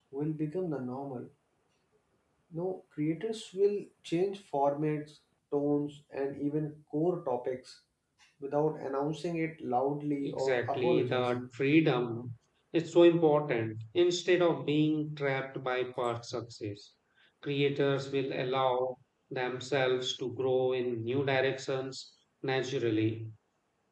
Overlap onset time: 10 s

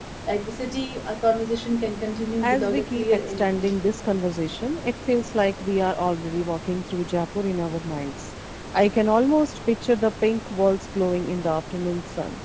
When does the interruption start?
2 s

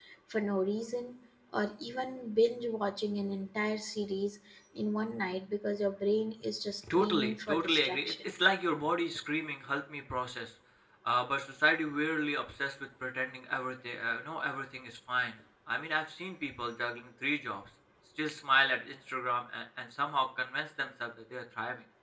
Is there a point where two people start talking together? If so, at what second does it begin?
7 s

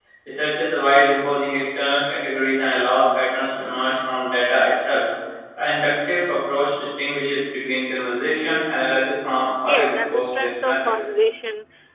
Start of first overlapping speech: 10 s

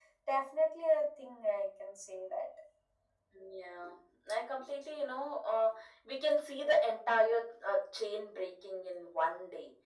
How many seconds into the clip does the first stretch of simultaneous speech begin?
none

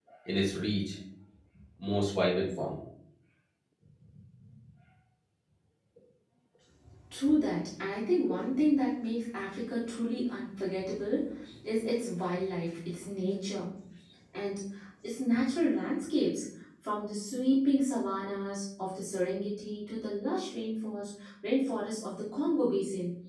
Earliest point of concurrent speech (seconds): none

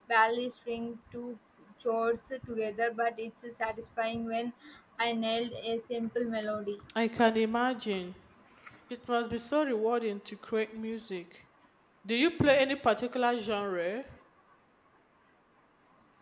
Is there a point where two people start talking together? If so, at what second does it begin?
none

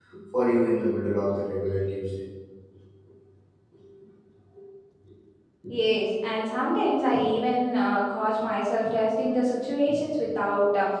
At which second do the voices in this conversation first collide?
none

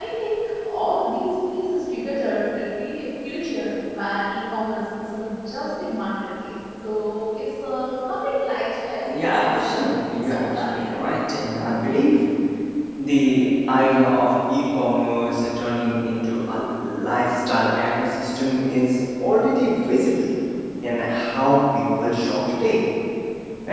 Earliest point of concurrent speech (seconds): 9 s

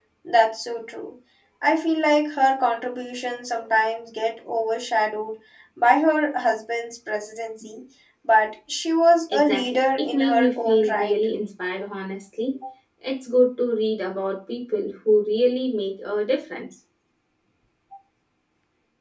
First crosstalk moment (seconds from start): 9 s

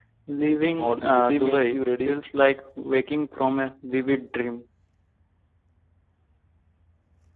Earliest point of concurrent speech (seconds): 1 s

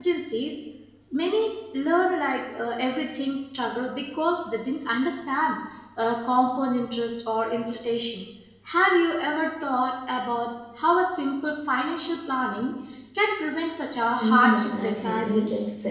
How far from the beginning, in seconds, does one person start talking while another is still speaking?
14 s

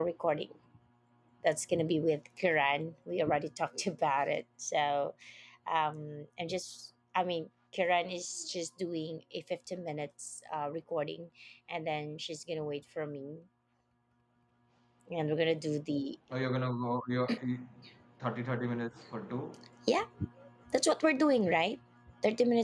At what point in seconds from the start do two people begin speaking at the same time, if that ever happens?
none

